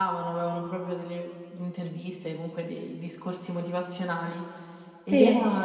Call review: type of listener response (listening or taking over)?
listening